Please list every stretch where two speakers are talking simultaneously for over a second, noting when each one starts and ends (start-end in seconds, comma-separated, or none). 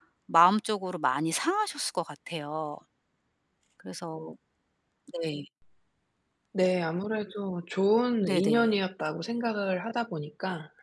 none